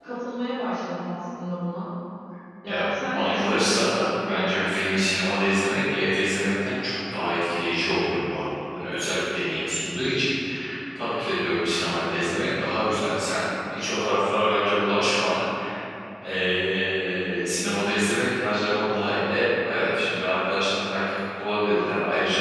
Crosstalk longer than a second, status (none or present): present